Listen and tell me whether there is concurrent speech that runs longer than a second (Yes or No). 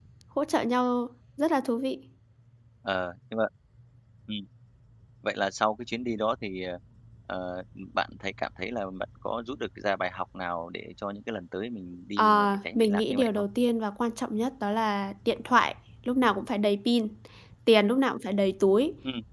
Yes